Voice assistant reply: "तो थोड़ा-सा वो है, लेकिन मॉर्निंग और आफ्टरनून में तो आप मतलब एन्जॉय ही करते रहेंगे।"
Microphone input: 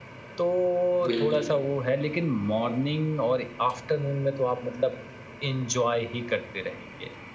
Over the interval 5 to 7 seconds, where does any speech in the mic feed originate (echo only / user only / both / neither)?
echo only